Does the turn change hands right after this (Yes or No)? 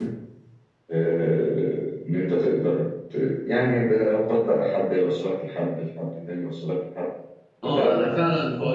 Yes